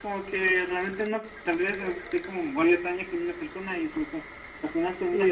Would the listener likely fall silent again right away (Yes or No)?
No